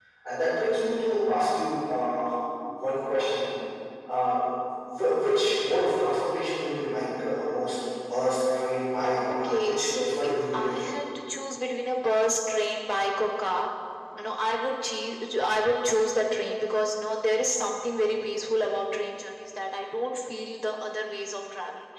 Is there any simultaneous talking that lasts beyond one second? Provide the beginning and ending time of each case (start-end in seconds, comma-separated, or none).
9.3-10.9